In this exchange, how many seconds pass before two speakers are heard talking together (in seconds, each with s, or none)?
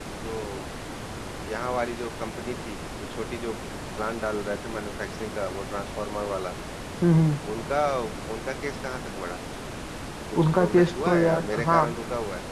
10.4 s